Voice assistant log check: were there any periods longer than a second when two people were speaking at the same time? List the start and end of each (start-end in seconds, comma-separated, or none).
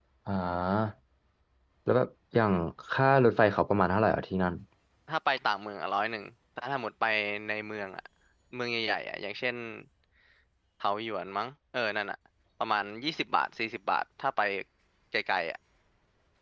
none